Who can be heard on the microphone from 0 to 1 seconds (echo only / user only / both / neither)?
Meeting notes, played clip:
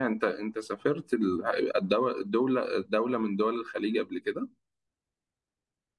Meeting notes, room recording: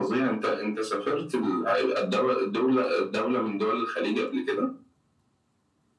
echo only